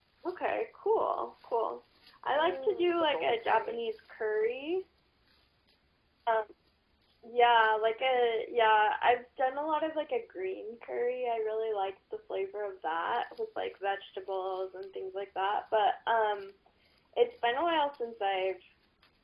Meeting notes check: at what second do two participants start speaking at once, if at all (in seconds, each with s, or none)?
2.2 s